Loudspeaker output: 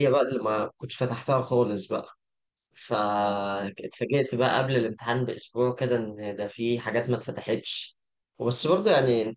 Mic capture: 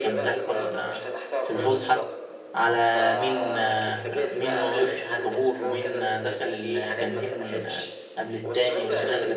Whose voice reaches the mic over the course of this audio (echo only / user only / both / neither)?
both